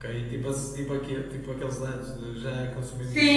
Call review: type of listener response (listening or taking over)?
taking over